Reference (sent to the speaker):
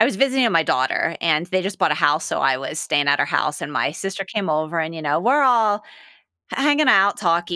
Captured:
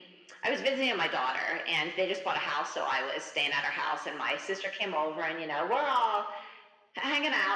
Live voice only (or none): none